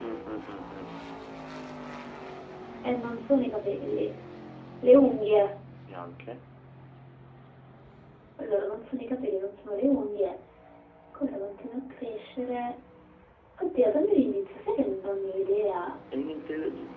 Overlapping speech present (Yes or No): No